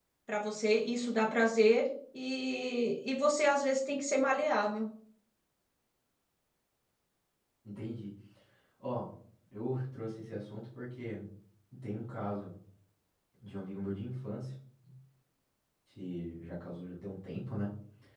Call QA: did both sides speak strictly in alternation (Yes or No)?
Yes